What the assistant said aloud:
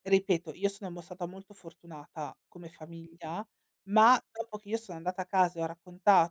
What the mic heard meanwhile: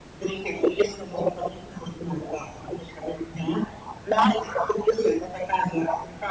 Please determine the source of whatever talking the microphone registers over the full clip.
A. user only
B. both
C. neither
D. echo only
D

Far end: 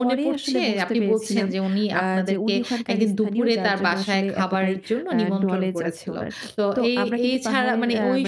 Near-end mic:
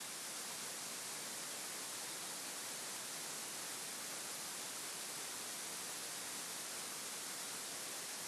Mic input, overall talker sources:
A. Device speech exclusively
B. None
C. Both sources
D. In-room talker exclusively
B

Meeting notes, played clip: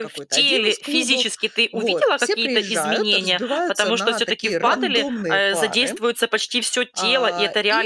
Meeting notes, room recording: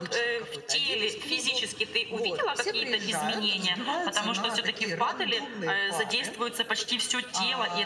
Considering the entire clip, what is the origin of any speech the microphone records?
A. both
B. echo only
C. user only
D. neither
B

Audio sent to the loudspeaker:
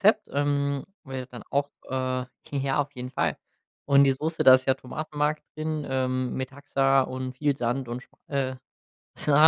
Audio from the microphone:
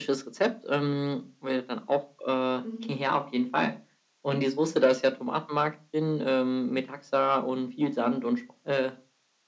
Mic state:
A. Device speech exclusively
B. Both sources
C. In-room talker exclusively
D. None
B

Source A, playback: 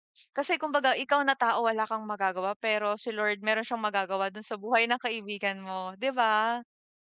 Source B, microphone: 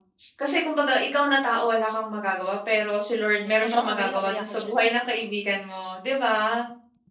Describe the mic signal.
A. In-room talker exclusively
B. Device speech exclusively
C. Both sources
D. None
C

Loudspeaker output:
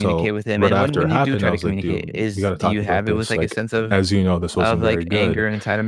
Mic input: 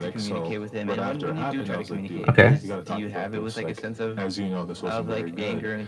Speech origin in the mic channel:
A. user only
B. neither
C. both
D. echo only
C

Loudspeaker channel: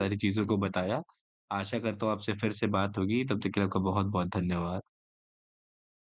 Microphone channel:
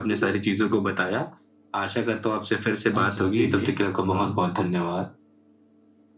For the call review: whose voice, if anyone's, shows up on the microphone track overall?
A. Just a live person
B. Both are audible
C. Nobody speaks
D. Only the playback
B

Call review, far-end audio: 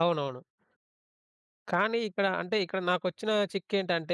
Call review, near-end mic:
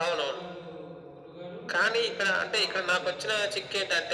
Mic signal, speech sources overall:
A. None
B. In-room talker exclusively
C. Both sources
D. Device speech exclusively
C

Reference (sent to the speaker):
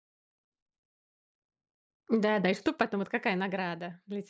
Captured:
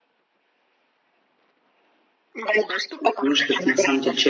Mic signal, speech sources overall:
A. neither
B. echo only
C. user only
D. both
D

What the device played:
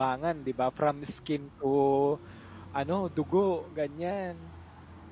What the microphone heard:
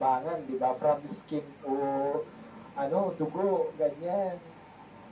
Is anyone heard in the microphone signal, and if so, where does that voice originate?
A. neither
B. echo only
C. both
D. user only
B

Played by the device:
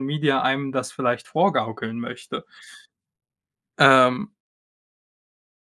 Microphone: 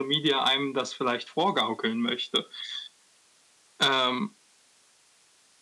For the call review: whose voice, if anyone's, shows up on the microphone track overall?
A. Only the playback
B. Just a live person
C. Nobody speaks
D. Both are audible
A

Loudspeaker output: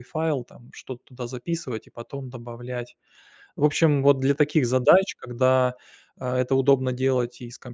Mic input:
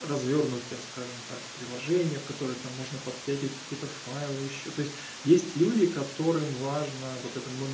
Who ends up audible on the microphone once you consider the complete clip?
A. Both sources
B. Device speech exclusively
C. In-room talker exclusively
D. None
C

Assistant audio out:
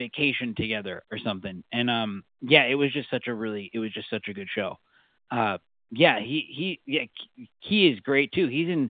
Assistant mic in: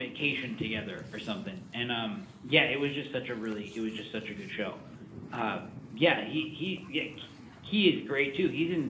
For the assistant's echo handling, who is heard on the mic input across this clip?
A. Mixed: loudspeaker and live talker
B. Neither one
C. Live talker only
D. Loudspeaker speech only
D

